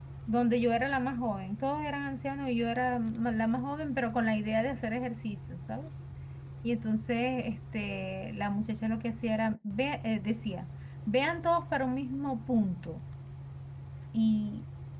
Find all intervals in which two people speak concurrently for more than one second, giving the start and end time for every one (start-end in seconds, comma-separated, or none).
none